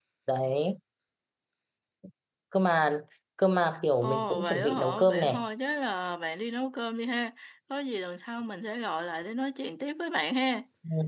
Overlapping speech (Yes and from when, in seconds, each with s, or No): Yes, from 4.0 s